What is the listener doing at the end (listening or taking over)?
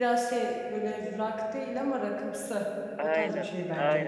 taking over